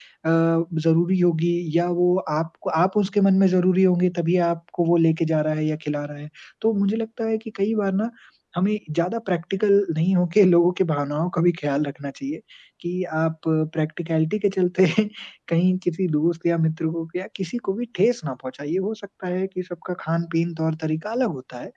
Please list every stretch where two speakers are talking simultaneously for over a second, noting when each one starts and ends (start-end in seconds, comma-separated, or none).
none